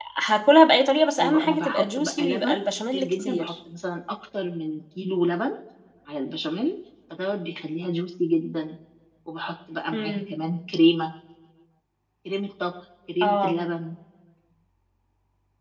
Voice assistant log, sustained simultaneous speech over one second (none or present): present